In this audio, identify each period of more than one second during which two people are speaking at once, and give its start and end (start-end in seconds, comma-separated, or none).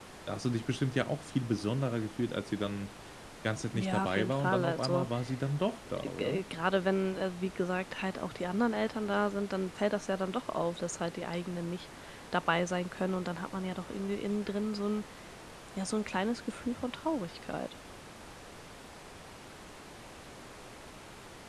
3.7-5.1